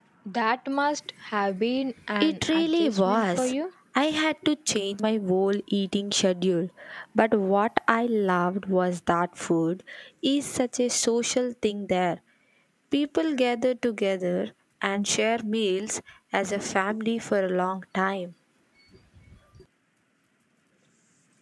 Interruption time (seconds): 2.2 s

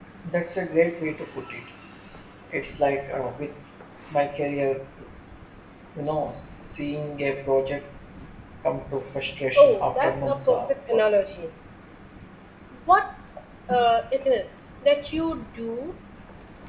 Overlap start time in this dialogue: 9.6 s

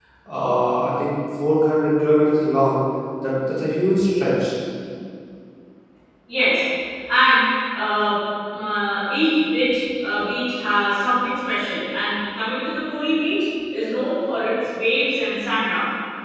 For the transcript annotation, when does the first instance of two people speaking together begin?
none

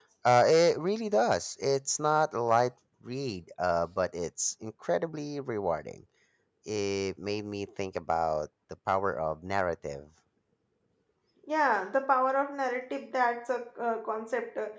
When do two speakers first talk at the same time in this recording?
none

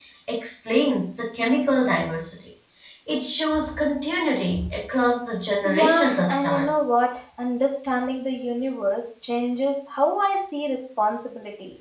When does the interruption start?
5.6 s

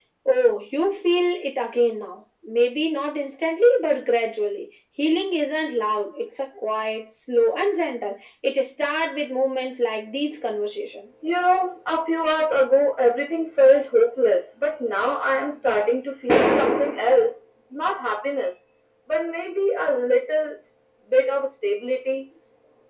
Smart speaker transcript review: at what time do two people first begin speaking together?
none

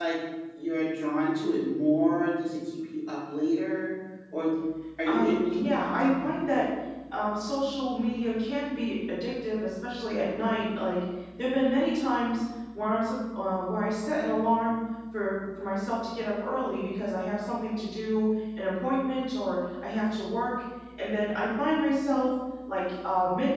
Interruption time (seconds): 5.1 s

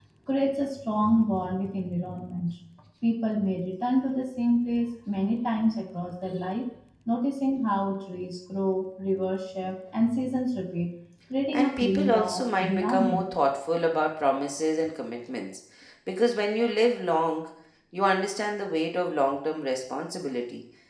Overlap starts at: 11.5 s

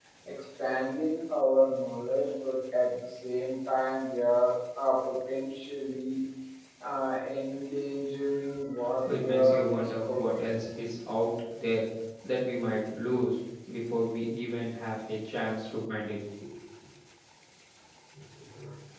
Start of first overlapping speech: 9.1 s

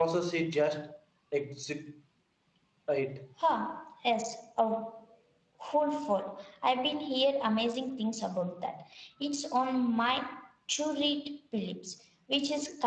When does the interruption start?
none

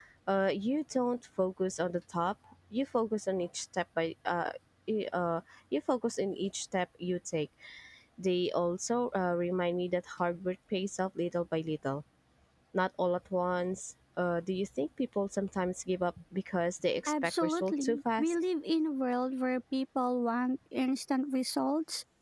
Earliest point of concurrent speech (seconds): 17.1 s

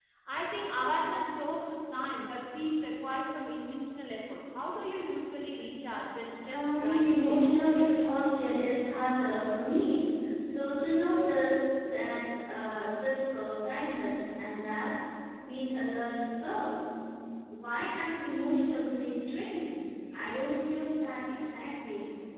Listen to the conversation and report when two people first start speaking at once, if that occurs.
6.5 s

